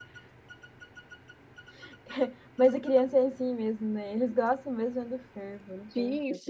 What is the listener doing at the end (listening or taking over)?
taking over